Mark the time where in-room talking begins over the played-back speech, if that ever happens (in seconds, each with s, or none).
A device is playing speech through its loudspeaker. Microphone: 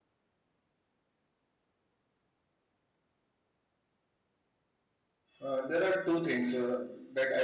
5.4 s